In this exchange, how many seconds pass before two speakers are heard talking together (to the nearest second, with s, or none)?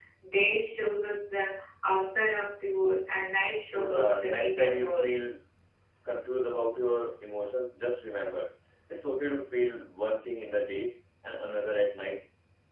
4 s